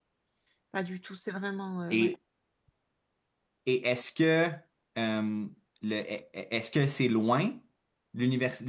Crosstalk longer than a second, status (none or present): none